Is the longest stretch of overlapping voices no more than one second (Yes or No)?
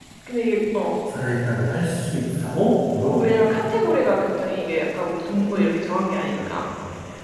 Yes